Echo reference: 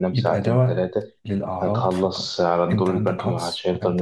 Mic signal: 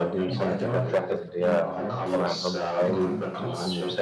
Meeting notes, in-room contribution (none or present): present